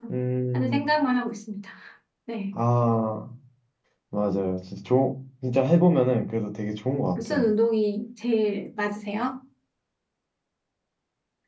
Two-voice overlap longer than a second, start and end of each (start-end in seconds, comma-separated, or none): none